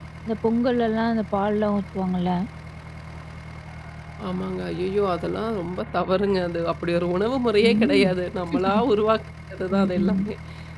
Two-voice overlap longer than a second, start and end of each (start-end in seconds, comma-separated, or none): none